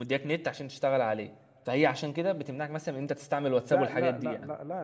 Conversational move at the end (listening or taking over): taking over